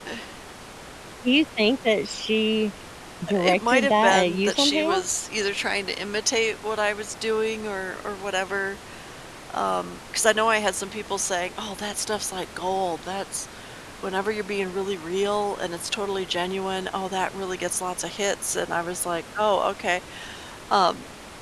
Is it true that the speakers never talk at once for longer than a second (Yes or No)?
No